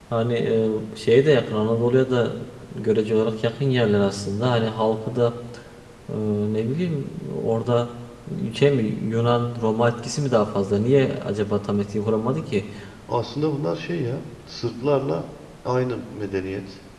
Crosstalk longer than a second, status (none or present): none